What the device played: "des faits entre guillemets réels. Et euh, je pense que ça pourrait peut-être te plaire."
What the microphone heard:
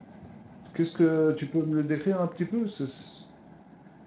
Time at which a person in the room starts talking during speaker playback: 0.7 s

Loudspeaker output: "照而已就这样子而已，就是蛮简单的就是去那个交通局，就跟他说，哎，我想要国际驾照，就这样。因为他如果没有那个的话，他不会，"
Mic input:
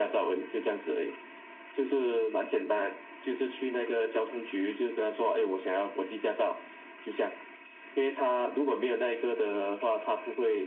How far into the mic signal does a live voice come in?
none

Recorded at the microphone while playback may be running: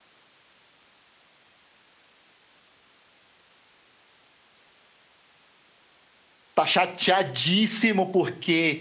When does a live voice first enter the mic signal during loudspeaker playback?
6.5 s

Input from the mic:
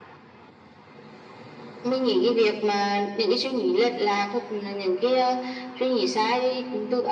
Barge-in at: none

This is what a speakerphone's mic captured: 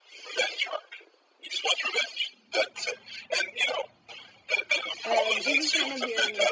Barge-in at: 5.0 s

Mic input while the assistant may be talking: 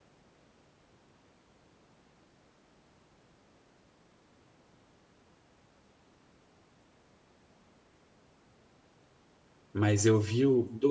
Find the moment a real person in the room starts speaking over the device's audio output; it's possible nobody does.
9.7 s

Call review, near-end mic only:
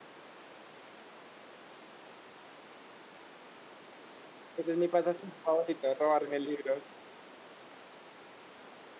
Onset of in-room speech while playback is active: 4.5 s

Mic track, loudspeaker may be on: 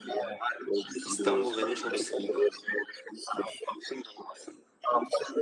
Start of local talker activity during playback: 1.0 s

